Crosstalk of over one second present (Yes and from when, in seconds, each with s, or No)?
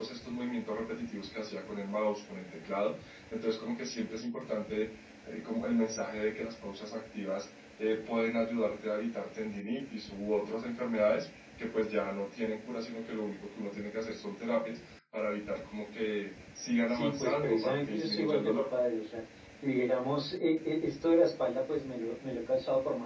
Yes, from 16.9 s